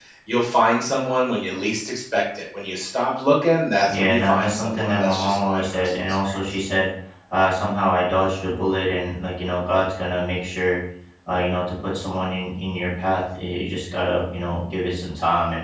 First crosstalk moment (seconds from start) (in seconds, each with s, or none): 3.9 s